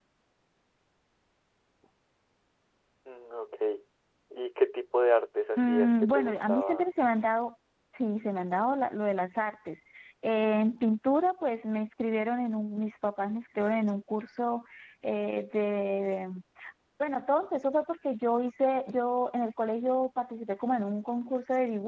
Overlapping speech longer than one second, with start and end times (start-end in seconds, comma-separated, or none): 5.6-6.9